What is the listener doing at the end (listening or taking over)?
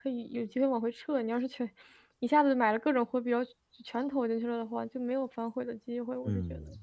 taking over